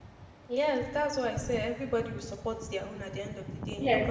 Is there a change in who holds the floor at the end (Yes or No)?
Yes